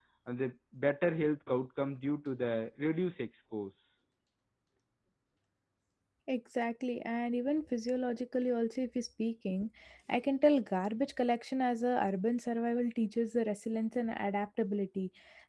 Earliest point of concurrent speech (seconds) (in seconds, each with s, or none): none